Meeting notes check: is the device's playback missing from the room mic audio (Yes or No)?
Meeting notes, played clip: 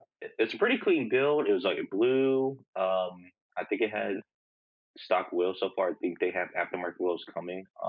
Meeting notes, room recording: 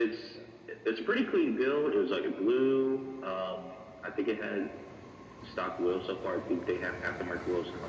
No